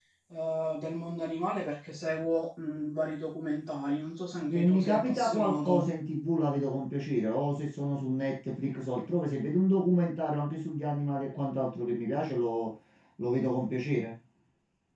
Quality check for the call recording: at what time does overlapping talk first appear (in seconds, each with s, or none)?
4.5 s